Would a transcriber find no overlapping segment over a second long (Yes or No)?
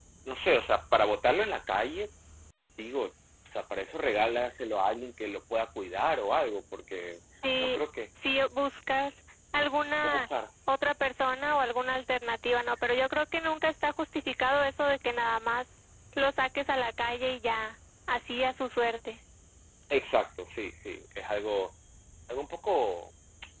Yes